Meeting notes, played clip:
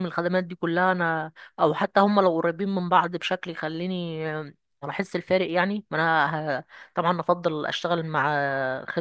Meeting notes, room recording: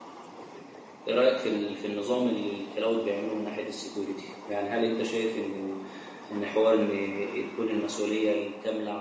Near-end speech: present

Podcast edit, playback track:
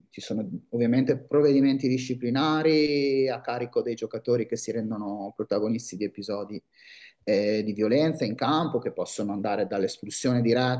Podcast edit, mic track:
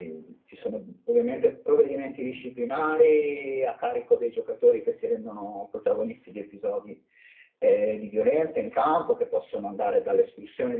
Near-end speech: none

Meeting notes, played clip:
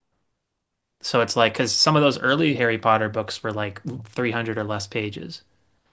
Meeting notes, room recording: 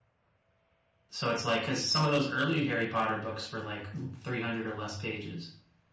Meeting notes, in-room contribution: none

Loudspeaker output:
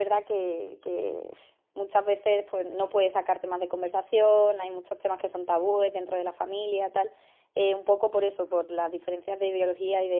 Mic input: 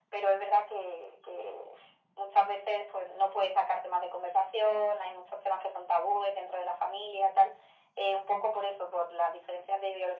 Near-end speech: none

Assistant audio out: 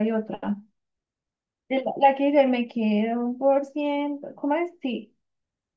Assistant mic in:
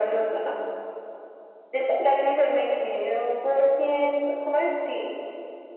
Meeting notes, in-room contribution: none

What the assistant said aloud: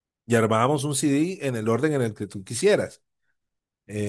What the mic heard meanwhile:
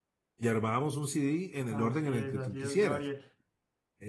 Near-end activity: present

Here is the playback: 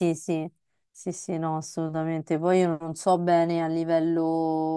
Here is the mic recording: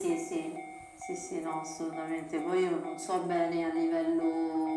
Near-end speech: none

